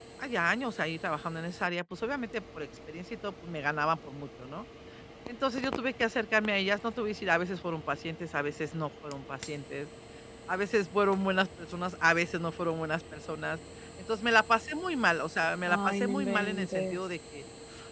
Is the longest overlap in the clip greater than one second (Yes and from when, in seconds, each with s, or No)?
Yes, from 15.7 s